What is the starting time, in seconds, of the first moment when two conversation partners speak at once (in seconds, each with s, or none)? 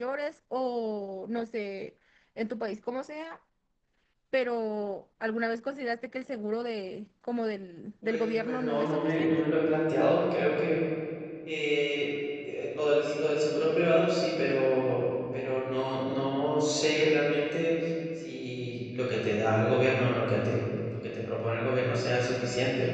8.0 s